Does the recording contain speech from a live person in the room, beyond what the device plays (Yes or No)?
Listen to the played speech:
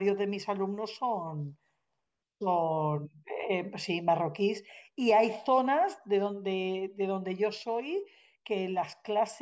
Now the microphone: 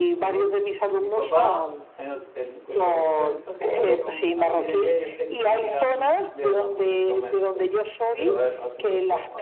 Yes